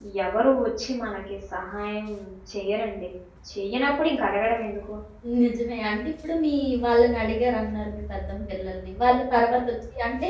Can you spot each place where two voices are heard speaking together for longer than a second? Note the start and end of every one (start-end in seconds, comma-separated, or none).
none